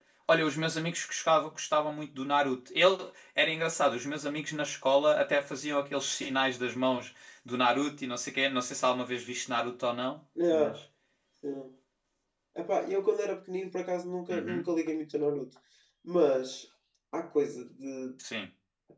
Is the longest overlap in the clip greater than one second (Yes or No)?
No